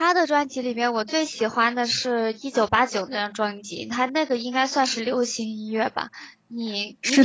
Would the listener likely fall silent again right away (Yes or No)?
No